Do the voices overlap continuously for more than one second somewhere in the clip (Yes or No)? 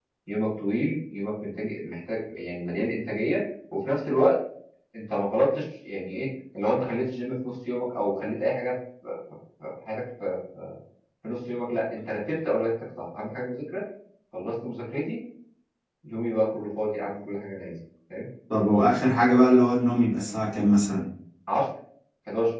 No